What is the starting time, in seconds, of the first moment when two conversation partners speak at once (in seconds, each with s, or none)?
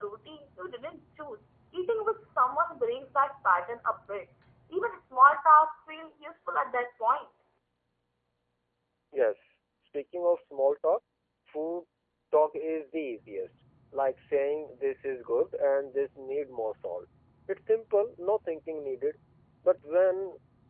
none